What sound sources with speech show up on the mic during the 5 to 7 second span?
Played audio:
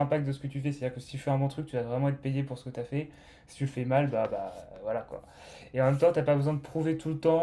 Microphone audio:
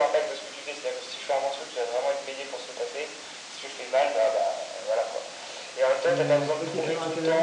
both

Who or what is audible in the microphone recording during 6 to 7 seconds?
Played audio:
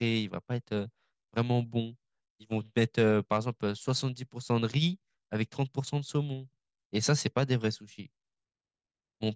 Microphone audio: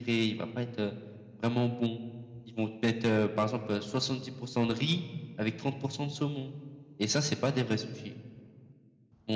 echo only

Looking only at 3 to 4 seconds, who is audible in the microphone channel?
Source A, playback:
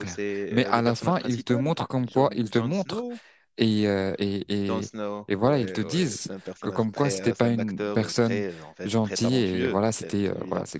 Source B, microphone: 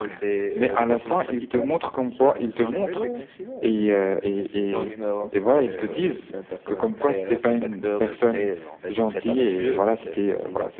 both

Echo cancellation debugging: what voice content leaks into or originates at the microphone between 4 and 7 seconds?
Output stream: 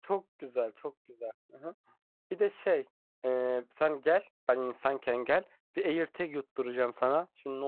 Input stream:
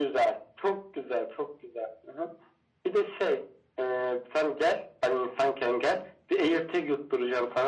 echo only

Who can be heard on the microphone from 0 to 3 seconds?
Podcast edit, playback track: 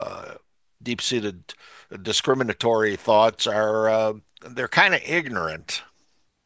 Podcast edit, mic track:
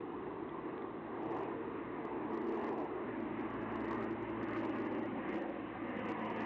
neither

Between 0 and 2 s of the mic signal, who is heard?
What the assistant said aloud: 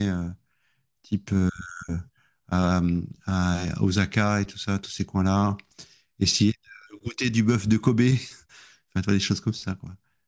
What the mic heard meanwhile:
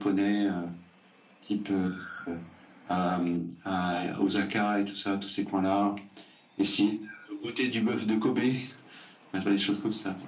echo only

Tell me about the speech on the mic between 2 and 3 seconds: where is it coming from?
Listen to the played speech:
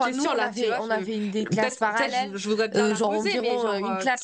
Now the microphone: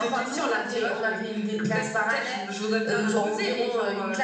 echo only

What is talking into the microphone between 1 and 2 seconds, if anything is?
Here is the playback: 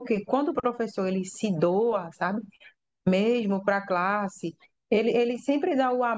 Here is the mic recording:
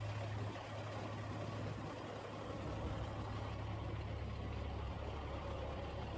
neither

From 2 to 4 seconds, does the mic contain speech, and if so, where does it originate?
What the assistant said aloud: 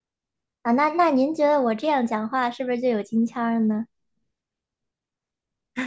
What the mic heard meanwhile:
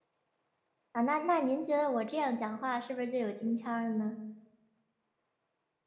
echo only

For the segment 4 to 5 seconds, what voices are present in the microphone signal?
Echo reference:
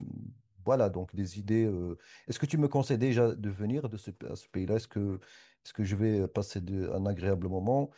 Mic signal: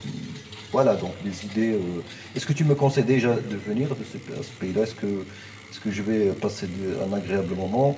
echo only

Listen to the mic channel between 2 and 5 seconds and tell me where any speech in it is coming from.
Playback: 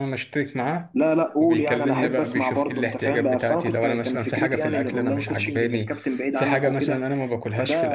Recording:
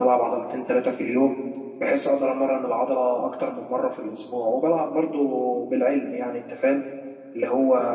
user only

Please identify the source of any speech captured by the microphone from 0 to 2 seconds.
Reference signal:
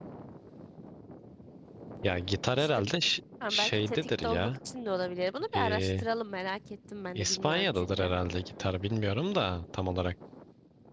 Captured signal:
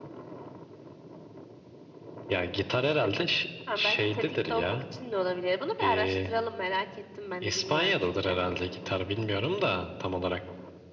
neither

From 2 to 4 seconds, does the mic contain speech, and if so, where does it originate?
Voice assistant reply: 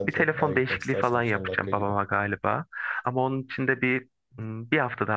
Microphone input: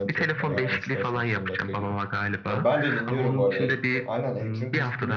both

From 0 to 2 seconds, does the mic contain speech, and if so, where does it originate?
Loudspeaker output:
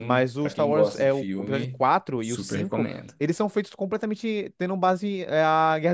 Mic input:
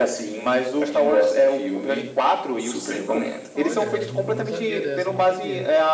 echo only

